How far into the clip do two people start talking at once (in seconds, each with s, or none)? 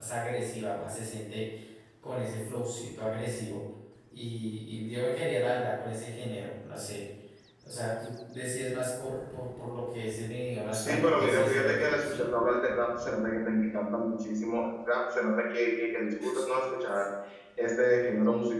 10.7 s